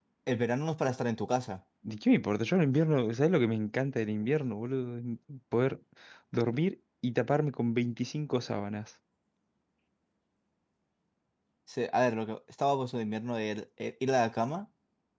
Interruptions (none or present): none